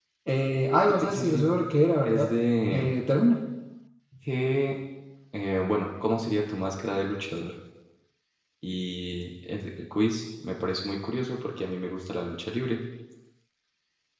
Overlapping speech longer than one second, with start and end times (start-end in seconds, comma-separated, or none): none